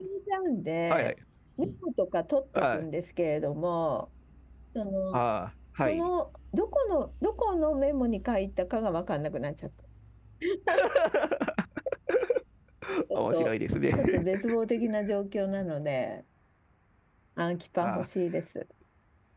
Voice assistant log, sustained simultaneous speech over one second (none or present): none